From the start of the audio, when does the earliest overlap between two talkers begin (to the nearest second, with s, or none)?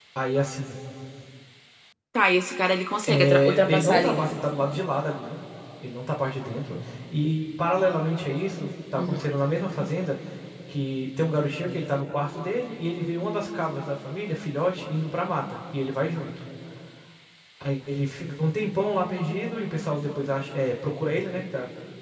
3 s